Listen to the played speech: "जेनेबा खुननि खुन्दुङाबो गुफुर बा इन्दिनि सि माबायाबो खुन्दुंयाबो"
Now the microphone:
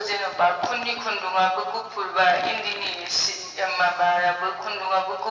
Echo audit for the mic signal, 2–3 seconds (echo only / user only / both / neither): echo only